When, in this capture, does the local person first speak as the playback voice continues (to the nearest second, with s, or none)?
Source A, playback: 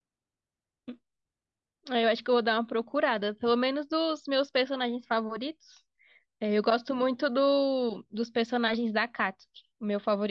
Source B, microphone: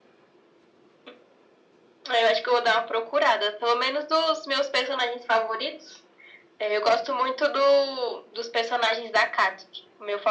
none